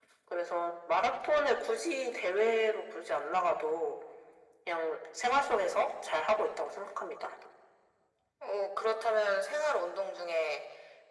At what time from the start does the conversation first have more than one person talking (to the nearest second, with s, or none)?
none